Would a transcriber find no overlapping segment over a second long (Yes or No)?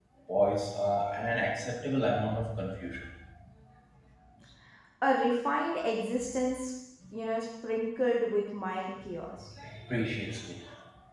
Yes